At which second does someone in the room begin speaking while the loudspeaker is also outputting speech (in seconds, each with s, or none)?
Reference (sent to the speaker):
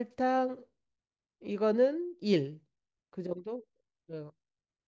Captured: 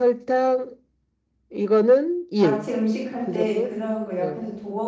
2.4 s